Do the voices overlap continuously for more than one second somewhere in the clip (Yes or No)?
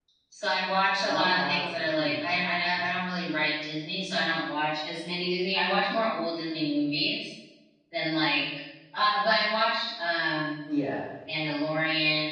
Yes